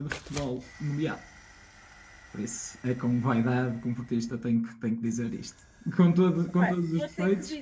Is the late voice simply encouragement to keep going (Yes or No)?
No